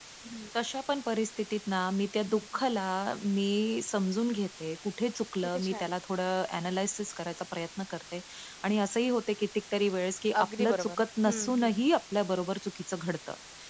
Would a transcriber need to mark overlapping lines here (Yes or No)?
Yes